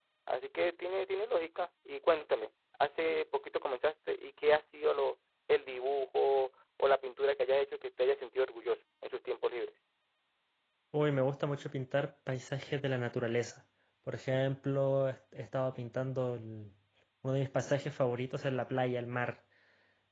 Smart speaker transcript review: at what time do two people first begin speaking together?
none

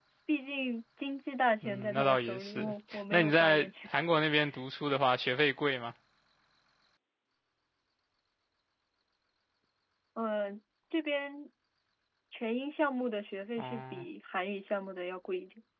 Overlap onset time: 1.6 s

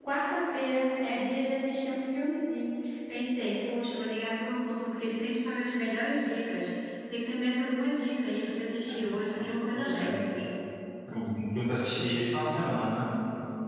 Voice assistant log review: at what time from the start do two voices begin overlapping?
8.9 s

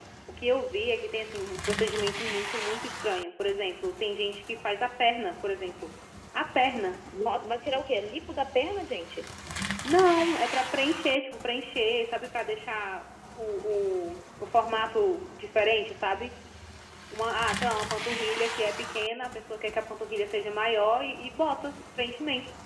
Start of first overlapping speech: none

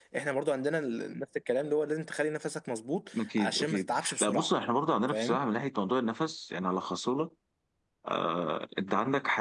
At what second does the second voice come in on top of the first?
3.2 s

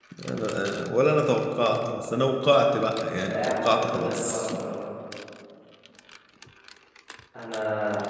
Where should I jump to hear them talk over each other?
3.2 s

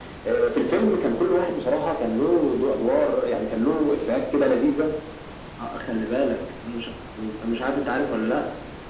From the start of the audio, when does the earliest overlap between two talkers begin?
none

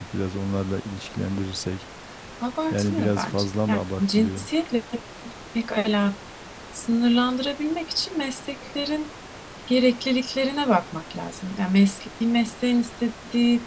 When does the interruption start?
2.7 s

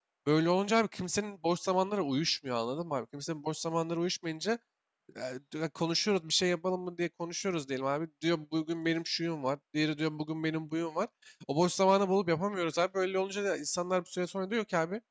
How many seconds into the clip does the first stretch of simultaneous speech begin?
none

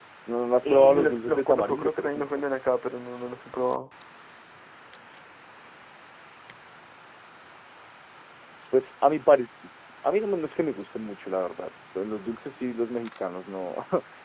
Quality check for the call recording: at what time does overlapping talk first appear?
0.7 s

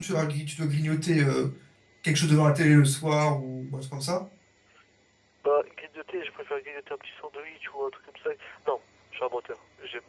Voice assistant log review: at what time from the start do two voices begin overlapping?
none

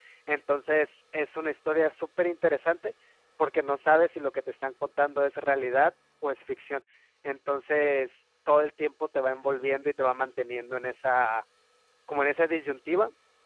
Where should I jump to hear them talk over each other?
none

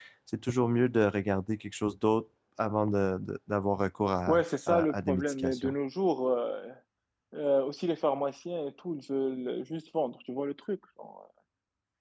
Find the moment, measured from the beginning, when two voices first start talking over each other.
4.3 s

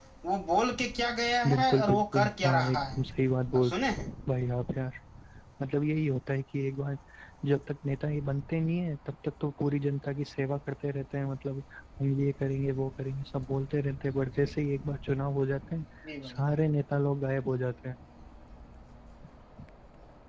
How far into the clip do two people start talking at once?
1.5 s

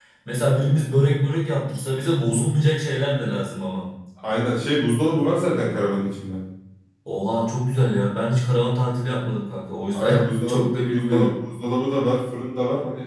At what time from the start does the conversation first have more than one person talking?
9.9 s

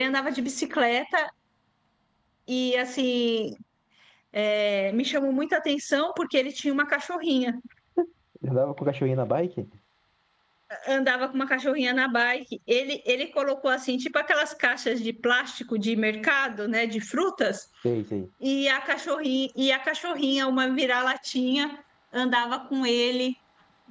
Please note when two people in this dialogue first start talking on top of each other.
none

